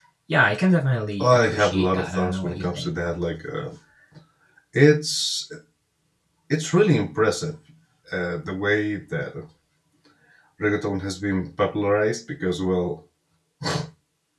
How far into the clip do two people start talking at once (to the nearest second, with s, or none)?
1 s